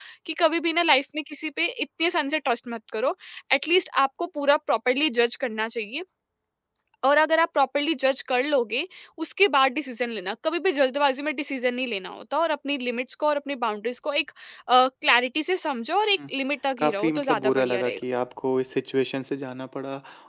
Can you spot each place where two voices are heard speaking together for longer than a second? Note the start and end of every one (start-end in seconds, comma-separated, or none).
16.8-18.0